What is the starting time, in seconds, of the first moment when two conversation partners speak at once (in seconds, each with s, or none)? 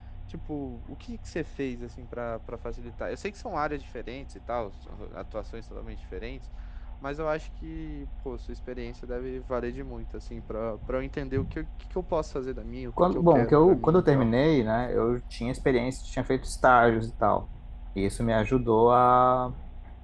13.0 s